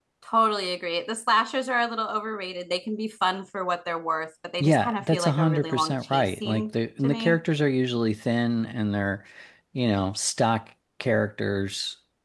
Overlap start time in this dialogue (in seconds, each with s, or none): 4.6 s